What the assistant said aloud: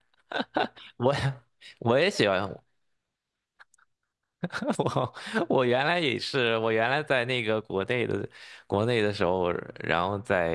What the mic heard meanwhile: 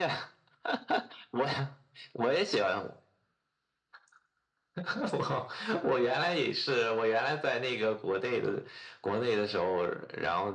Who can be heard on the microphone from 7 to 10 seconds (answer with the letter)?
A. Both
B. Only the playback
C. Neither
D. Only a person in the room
B